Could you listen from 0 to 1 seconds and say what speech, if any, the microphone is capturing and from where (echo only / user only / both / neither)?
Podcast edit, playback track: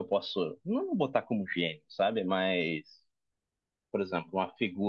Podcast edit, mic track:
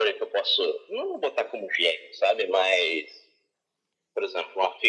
echo only